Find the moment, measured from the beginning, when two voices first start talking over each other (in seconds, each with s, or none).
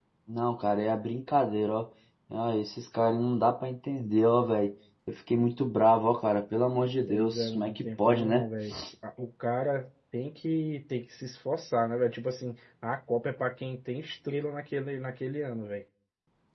7.1 s